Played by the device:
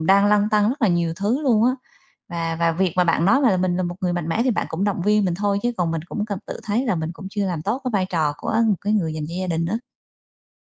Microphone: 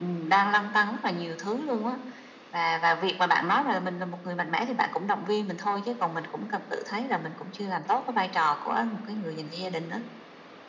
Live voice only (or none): none